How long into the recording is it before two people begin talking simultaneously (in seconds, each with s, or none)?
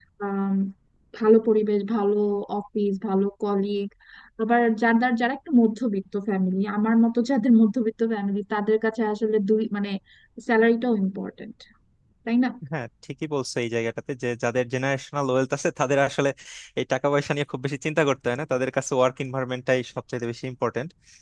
none